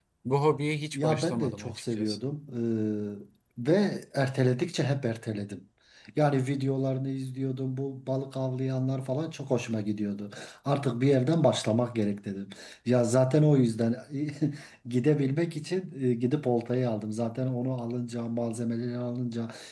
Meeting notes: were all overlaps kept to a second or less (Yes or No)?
No